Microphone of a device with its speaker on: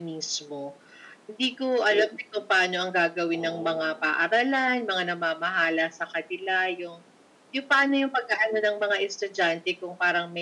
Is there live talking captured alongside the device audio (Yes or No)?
Yes